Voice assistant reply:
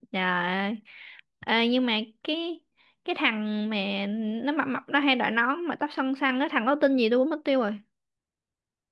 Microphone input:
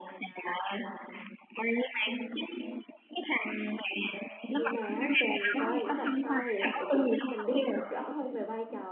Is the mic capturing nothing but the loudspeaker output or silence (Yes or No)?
No